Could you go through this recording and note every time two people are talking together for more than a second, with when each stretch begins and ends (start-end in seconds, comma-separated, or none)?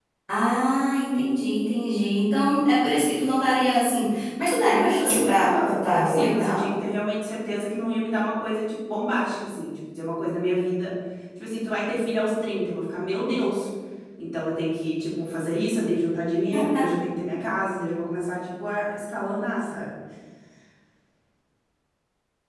5.0-6.6